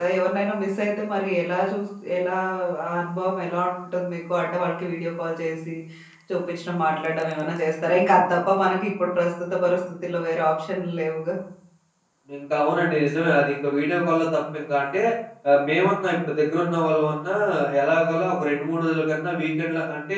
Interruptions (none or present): none